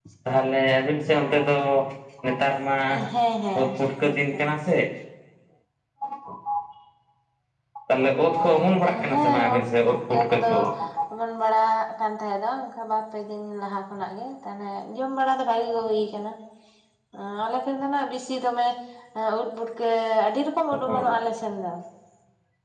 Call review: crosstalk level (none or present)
present